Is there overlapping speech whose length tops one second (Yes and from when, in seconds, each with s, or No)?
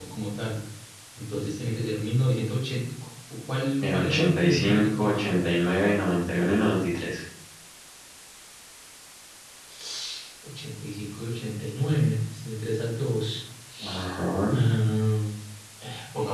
Yes, from 3.8 s